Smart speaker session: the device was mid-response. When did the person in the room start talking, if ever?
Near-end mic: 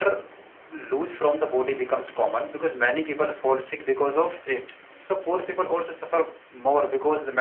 none

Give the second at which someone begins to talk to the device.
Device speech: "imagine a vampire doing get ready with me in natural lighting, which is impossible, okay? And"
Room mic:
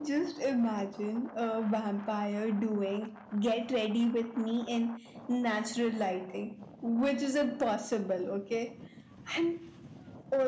none

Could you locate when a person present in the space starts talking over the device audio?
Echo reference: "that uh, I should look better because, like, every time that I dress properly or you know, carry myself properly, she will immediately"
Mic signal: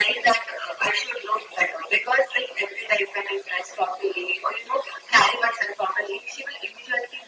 none

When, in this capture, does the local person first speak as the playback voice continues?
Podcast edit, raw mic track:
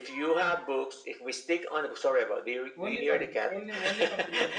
3 s

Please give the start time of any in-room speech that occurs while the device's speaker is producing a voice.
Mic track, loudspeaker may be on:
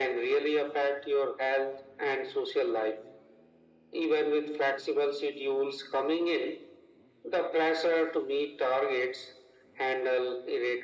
none

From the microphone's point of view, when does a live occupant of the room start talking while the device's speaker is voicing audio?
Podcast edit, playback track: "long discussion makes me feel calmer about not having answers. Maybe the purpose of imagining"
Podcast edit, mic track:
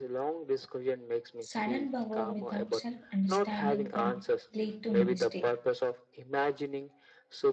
1 s

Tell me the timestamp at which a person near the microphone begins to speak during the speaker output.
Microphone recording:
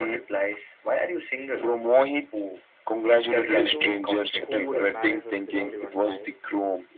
3 s

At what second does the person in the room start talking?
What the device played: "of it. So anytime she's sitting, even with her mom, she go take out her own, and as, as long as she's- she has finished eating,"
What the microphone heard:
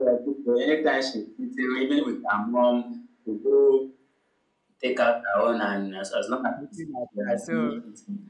7 s

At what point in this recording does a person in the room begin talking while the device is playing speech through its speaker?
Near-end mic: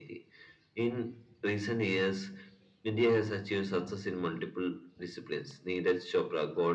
none

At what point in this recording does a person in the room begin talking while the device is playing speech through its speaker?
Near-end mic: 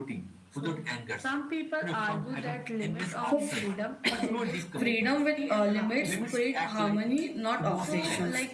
3 s

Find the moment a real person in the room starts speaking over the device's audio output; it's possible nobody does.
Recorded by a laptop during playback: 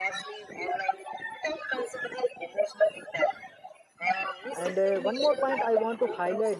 5 s

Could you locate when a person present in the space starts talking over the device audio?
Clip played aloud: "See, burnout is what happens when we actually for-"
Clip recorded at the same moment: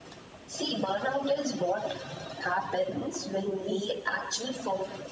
none

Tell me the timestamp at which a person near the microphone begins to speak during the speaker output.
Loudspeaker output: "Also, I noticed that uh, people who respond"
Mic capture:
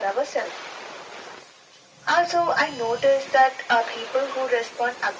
none

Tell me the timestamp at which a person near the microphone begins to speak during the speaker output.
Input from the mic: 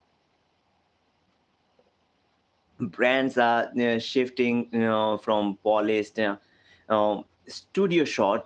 3 s

